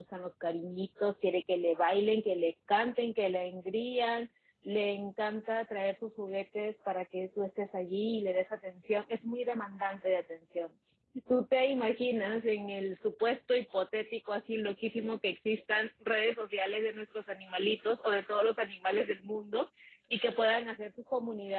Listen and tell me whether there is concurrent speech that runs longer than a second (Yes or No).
No